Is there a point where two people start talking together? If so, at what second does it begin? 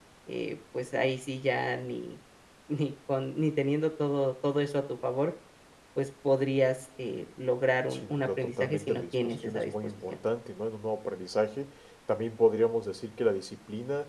7.9 s

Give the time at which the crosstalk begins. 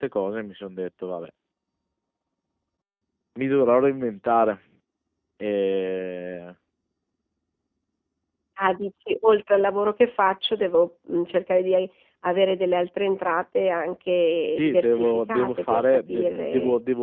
14.6 s

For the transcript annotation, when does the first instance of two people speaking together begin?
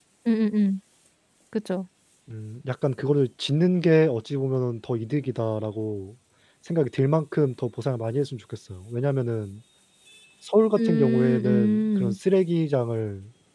10.8 s

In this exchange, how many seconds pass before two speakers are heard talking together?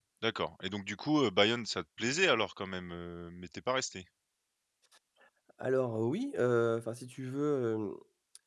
none

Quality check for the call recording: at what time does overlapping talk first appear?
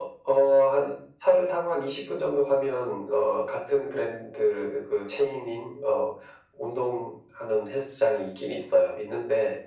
none

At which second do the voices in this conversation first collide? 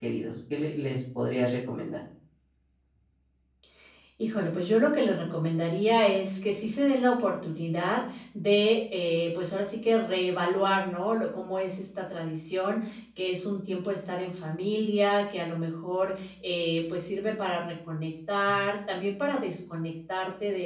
none

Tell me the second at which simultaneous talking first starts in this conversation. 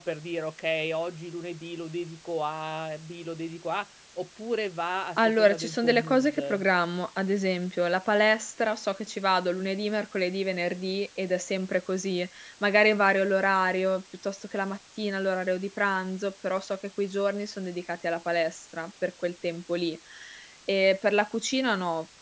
5.2 s

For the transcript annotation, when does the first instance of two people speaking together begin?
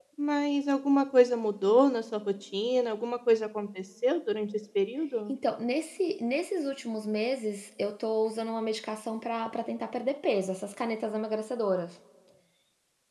none

